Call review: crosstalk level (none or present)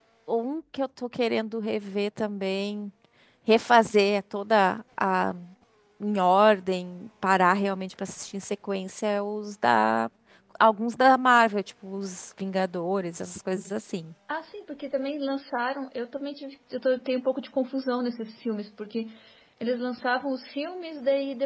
none